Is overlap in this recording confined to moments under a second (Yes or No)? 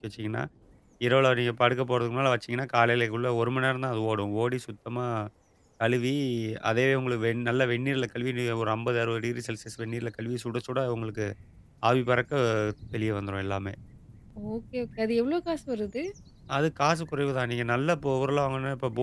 Yes